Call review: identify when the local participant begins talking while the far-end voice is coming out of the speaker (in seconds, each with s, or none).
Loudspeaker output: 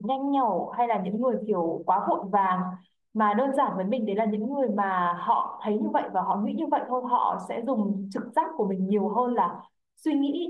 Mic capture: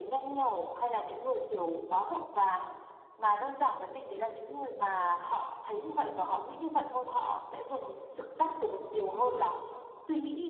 none